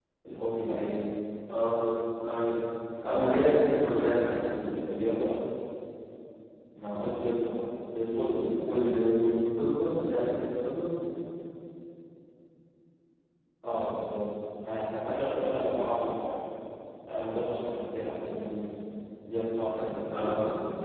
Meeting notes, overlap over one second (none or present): none